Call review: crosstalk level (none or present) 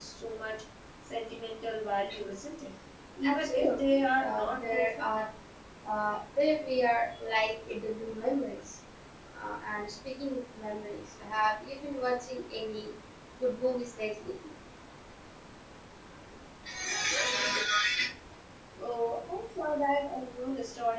present